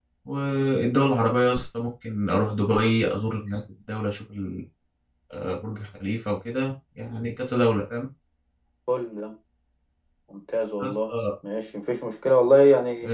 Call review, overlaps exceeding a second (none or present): none